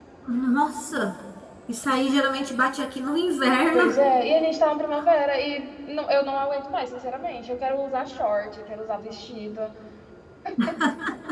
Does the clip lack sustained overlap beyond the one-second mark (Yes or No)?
Yes